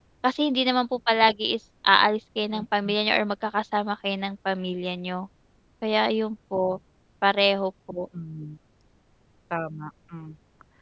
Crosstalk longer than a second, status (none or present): none